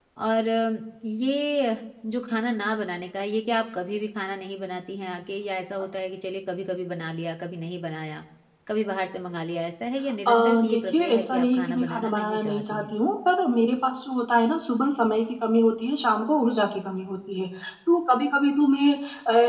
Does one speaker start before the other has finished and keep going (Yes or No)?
Yes